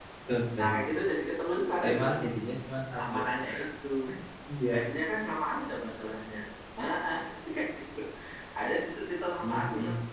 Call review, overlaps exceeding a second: none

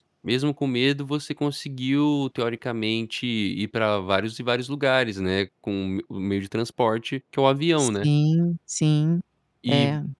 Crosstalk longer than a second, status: none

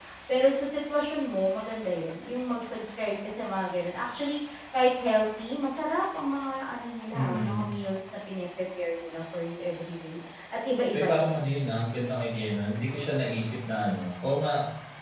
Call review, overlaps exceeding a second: none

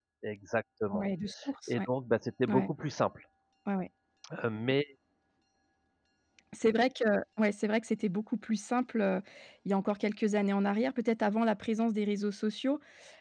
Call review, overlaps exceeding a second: none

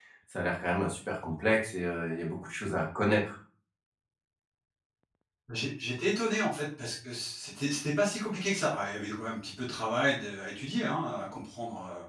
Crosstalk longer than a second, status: none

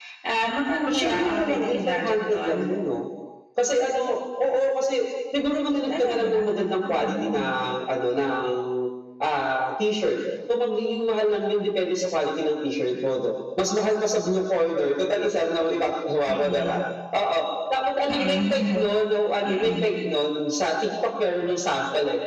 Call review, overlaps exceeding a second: present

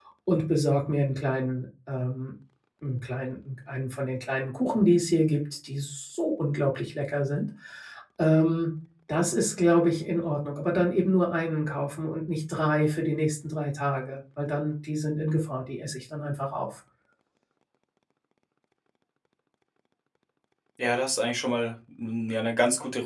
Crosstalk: none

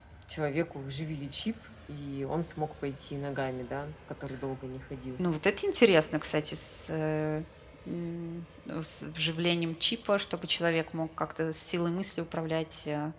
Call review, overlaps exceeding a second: none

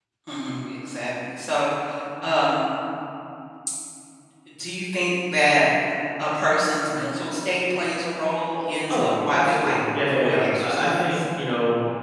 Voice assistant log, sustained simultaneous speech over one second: present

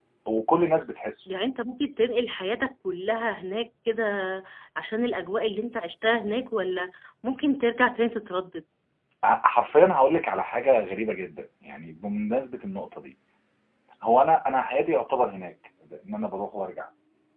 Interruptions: none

